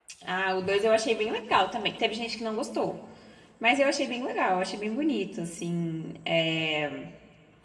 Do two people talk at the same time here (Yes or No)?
No